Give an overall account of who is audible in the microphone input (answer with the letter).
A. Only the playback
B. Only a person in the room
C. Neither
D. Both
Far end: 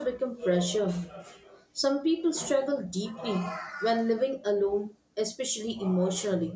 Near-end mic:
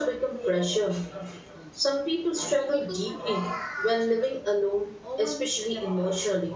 D